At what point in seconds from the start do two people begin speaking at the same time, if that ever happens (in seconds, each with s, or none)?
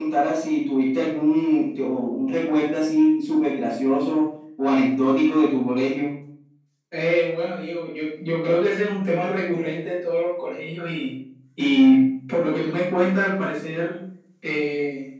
none